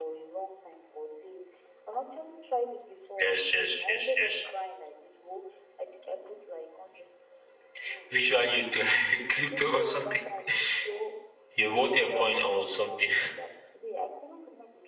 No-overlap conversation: No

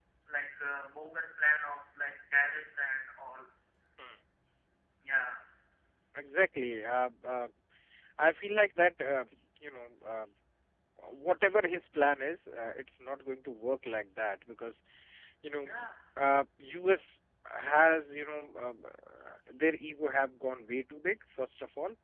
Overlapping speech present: No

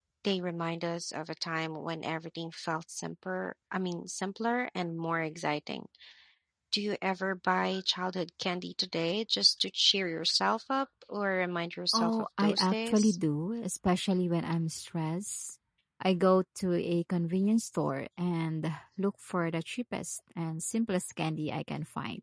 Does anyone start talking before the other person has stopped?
Yes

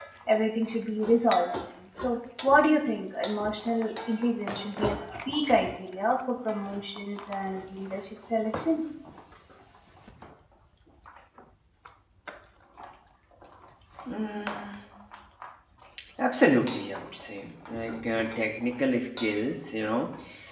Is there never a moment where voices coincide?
Yes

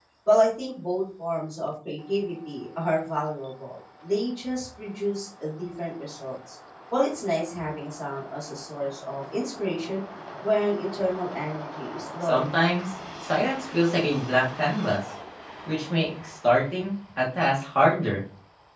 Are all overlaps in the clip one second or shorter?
Yes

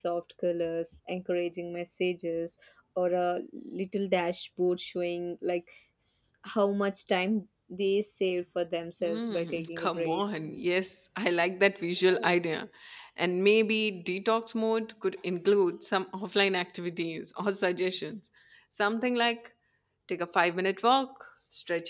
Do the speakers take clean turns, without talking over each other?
No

